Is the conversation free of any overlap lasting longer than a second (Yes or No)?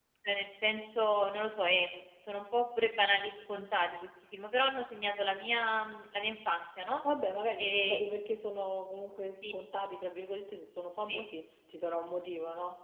Yes